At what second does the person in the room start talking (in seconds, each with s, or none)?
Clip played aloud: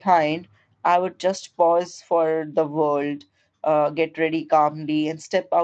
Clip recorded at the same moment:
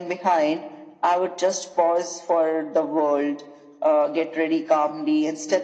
none